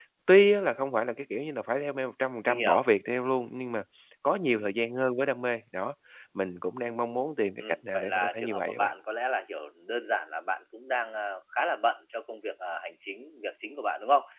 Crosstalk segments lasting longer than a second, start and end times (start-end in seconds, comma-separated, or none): 7.6-8.9